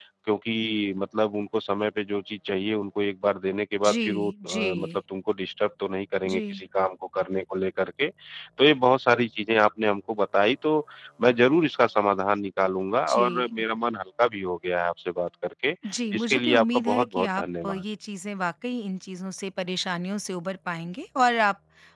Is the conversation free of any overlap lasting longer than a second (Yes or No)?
No